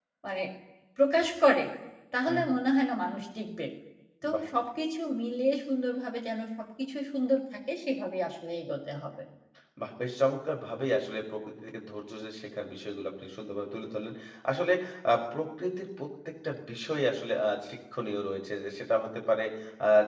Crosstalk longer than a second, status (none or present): none